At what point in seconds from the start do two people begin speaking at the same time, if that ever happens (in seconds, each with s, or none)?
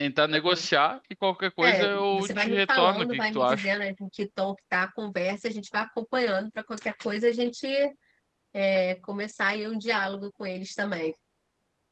1.6 s